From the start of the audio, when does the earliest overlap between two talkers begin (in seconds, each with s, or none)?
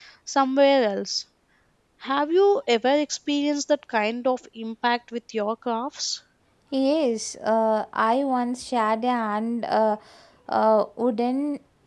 none